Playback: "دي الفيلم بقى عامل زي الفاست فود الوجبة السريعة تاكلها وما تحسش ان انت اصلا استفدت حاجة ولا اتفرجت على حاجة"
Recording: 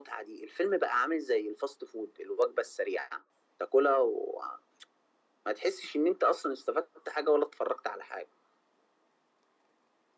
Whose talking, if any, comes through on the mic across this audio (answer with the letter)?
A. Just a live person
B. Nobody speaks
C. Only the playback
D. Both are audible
C